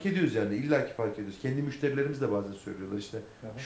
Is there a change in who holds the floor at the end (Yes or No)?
No